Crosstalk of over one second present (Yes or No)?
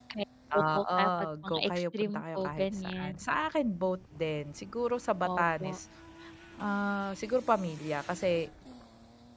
Yes